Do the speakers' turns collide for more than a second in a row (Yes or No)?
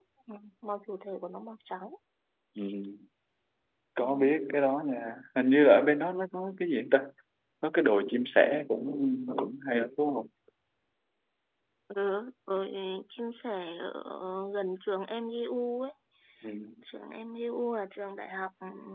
No